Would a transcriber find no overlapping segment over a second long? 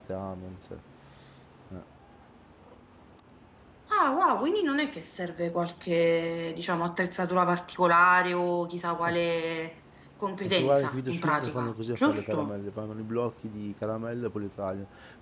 No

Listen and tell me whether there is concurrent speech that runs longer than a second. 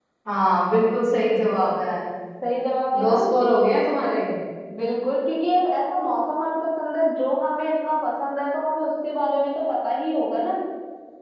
No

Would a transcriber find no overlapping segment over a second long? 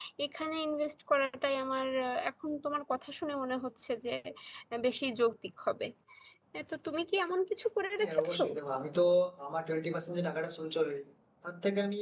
Yes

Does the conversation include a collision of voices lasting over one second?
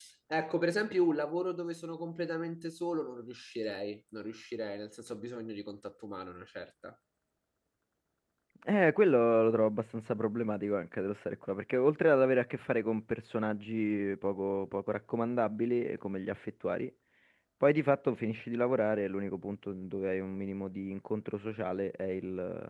No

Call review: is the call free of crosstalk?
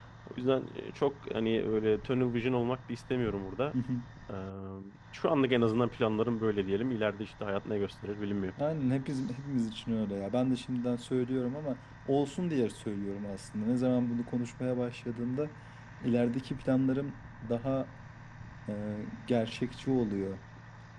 Yes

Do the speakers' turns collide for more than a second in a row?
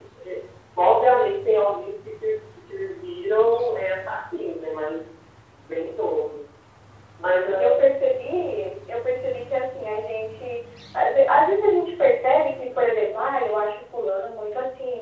No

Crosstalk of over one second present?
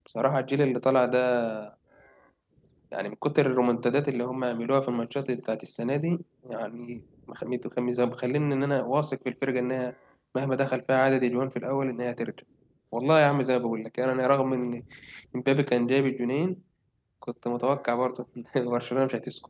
No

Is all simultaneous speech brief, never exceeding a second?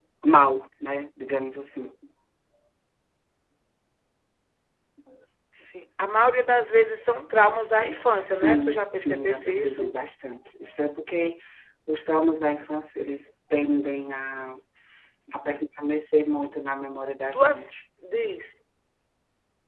No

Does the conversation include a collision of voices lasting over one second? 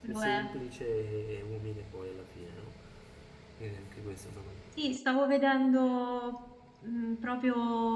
No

